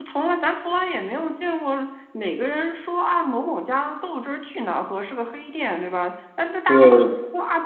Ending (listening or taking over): listening